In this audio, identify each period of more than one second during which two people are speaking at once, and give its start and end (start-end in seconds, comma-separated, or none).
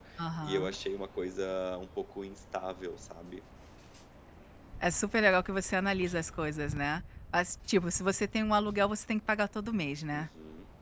none